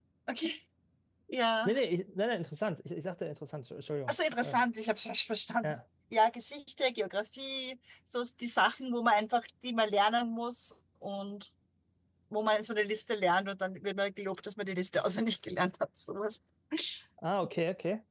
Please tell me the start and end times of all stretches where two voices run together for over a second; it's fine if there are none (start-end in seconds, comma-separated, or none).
none